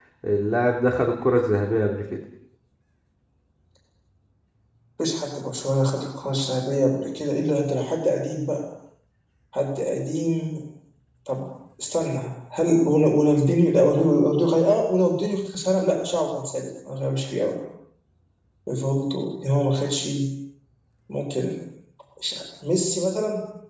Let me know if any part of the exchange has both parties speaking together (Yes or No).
No